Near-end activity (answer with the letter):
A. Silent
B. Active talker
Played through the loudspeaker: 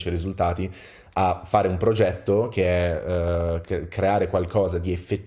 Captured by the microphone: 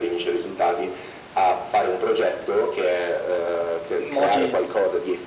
B